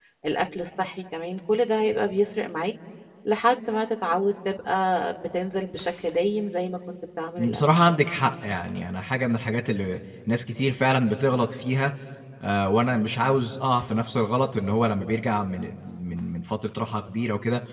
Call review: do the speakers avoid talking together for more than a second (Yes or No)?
Yes